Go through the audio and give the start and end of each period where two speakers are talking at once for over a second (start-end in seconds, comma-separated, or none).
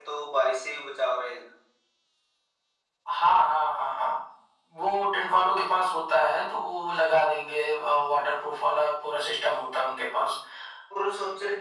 none